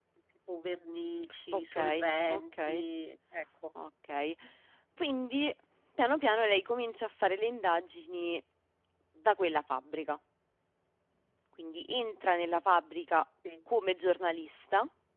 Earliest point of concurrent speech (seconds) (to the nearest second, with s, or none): 2 s